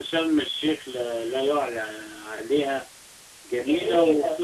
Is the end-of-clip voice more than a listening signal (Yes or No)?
No